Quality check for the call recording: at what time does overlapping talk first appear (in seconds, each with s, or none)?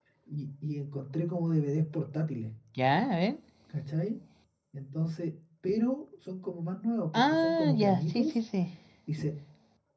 7.1 s